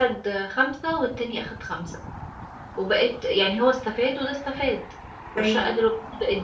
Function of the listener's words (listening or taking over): listening